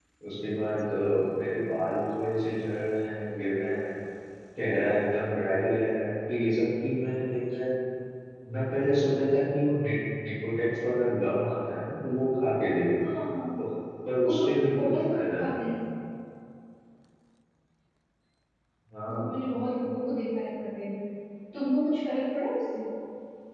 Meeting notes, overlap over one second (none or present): present